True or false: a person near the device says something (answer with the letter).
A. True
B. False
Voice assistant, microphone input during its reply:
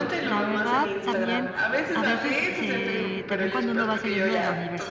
A